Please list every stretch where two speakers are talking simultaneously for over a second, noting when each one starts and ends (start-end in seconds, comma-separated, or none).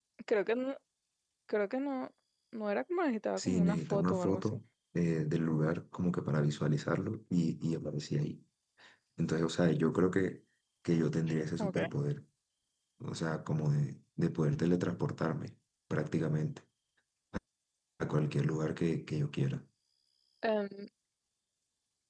3.4-4.6